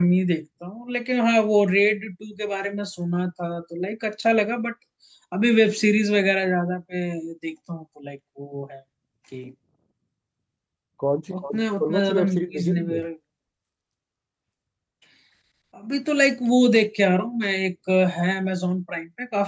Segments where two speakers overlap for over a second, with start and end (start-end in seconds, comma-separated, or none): 11.4-13.0